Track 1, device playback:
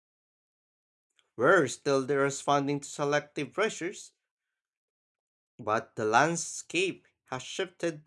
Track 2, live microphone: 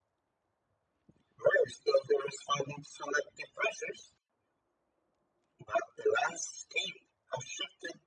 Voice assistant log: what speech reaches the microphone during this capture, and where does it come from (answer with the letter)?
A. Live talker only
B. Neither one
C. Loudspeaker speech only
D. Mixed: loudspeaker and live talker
C